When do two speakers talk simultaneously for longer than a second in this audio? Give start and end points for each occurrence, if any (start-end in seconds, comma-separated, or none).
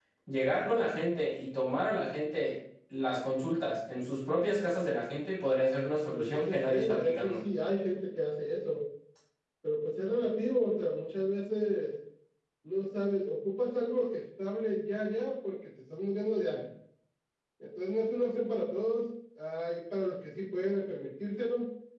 6.1-7.4